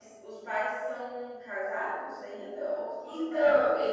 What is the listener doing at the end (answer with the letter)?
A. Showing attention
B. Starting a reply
B